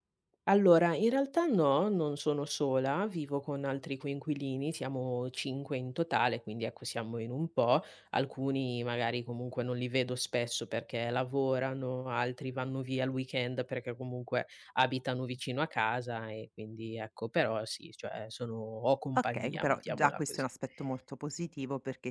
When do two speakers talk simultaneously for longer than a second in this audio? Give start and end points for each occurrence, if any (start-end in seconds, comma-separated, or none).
19.1-20.4